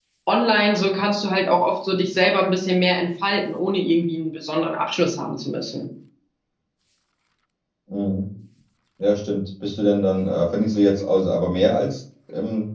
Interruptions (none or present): none